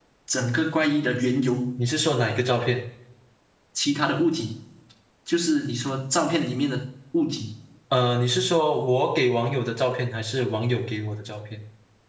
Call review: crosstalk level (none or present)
none